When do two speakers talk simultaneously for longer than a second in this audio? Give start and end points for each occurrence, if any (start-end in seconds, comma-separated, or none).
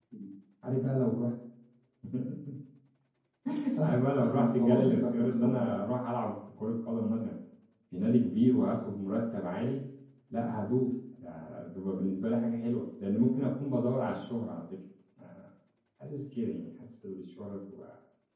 3.8-5.7